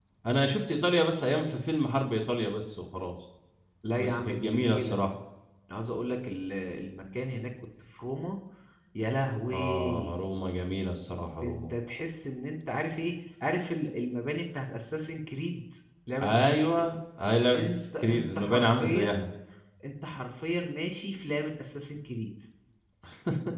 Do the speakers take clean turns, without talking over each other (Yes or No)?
No